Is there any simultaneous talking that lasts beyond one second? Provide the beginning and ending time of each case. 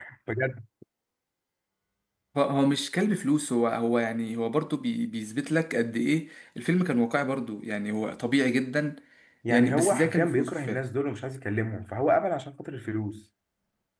9.5-10.8

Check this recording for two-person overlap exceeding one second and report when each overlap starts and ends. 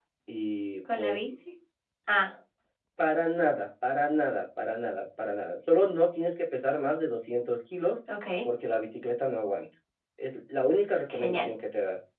none

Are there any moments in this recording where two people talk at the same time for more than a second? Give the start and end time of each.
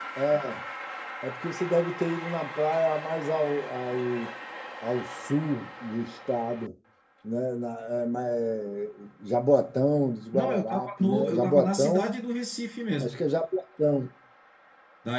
10.3-12.1

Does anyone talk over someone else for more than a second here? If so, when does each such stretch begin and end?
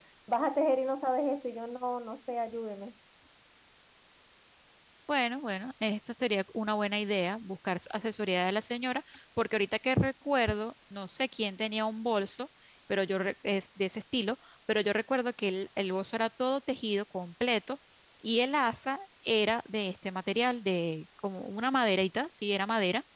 none

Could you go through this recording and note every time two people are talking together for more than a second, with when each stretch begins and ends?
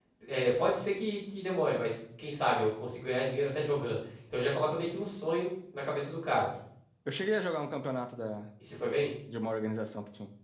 none

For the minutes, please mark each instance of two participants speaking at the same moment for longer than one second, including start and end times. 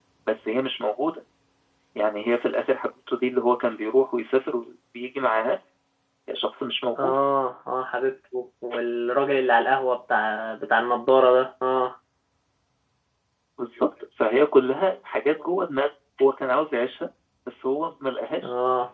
none

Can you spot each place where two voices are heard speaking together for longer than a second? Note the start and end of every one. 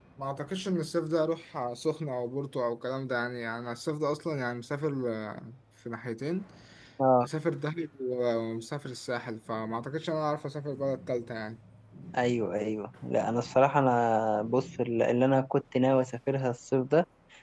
none

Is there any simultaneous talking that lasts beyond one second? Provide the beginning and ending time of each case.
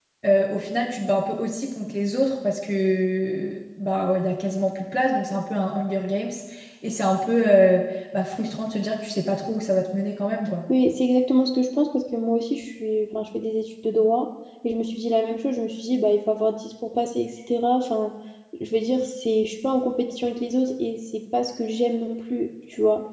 none

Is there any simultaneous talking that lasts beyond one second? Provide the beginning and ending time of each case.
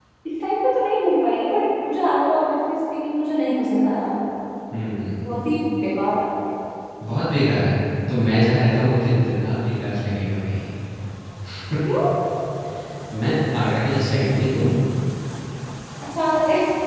none

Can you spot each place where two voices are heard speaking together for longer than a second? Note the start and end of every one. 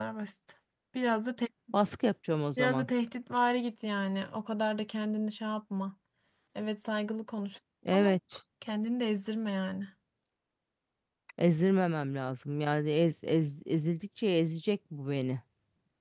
none

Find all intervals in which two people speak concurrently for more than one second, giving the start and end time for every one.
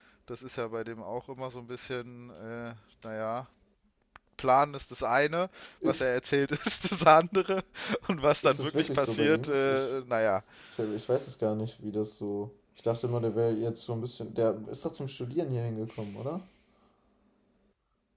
8.4-9.8

